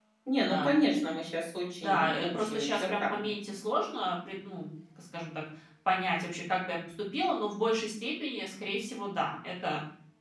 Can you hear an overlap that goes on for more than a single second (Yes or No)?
Yes